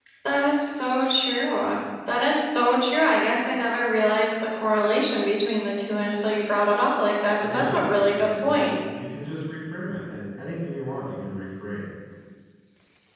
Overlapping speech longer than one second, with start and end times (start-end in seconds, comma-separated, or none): 7.4-8.8